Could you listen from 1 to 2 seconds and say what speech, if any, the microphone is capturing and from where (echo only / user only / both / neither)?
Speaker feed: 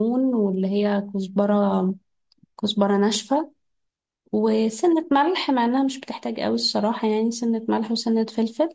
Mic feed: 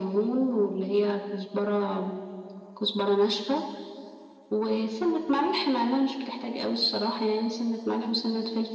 echo only